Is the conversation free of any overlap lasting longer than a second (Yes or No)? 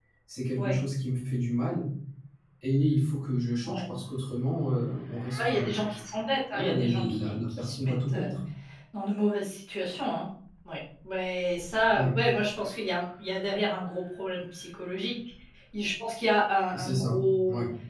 No